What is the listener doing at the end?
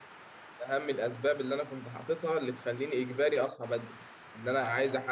listening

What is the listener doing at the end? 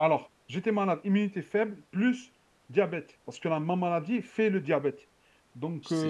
listening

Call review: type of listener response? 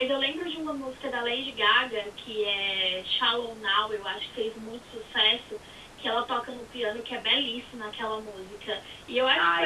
listening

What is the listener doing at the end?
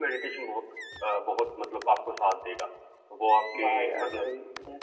taking over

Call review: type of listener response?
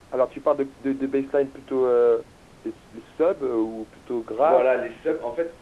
taking over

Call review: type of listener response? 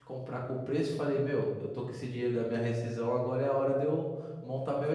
listening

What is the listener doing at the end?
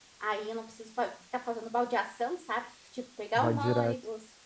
listening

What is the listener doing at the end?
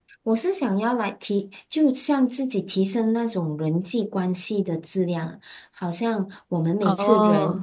listening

